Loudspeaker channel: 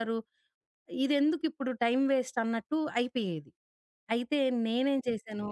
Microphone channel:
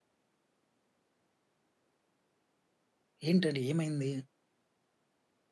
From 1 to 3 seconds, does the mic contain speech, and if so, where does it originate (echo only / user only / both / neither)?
neither